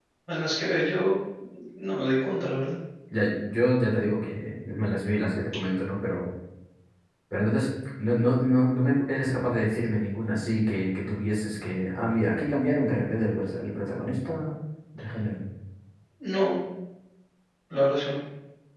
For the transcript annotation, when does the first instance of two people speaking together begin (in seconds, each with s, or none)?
none